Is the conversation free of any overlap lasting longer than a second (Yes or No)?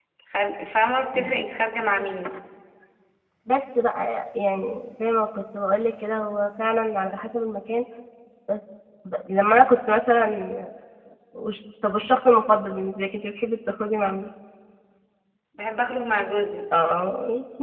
Yes